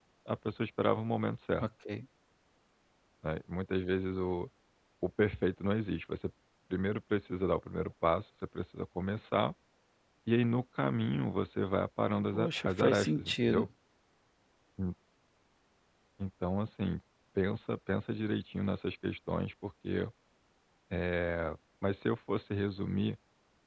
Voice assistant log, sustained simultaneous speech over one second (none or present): present